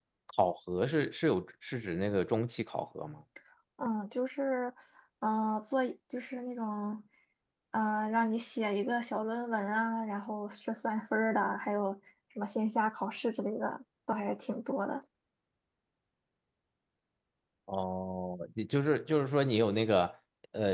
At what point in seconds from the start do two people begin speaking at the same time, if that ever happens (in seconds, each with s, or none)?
none